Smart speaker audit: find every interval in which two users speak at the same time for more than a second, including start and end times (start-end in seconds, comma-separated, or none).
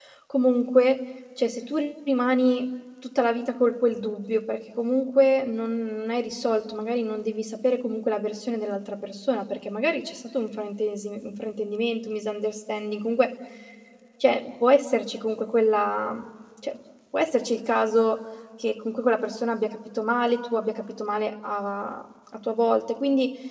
none